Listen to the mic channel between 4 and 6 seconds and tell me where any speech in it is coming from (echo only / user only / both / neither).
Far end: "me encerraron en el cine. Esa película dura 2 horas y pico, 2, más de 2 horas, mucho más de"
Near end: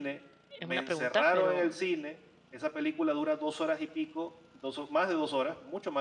echo only